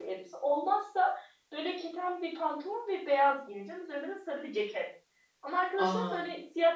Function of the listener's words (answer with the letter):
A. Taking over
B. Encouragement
B